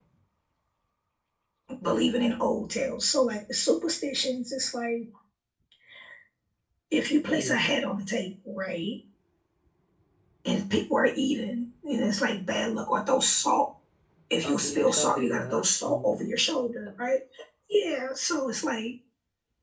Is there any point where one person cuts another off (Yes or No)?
Yes